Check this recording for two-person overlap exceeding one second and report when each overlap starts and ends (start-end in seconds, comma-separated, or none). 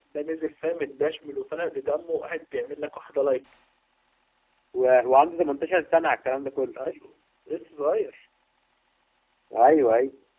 none